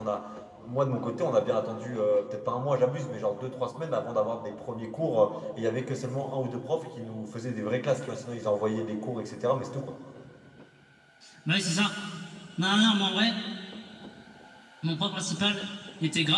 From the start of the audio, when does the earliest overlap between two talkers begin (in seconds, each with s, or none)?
none